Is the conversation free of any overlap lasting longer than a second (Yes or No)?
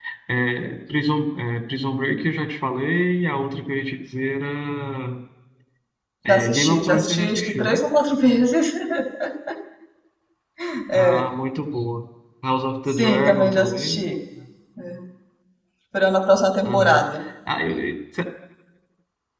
No